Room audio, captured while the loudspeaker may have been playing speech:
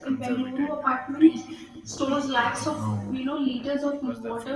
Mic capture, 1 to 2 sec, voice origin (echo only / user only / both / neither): echo only